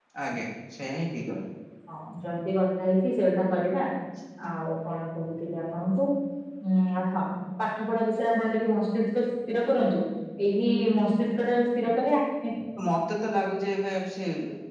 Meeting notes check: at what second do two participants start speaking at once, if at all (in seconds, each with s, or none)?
none